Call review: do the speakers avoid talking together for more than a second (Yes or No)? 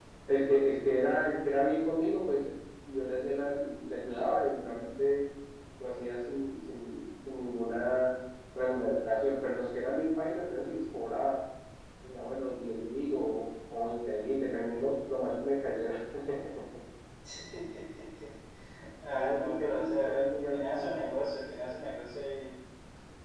No